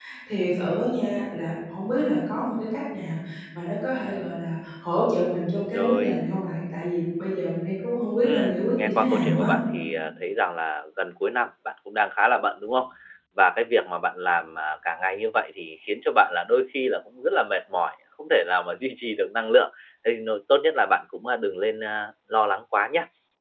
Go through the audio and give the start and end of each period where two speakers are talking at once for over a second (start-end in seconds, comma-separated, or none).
8.2-9.5